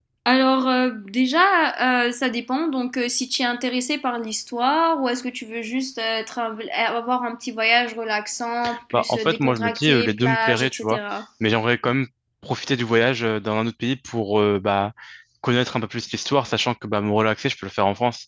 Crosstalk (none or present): present